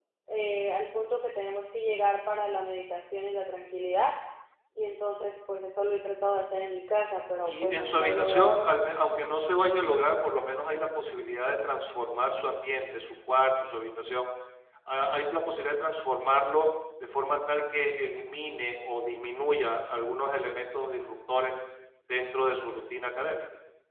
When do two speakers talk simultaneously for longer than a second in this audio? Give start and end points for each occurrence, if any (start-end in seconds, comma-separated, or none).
7.5-8.9